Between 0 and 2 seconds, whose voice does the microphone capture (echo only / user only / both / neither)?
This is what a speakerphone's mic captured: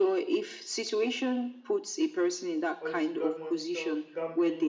echo only